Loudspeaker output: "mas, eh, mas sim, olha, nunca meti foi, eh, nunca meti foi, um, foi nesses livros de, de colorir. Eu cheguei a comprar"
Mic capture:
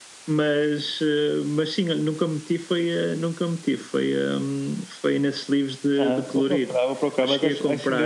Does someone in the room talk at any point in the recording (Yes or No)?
Yes